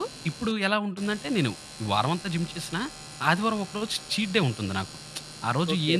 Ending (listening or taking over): listening